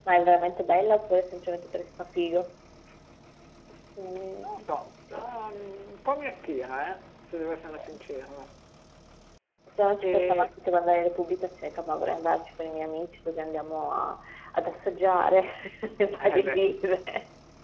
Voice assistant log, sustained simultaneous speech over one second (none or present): none